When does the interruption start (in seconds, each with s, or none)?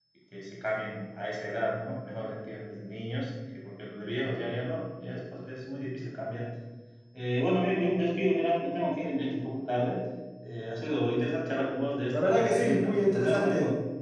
12.1 s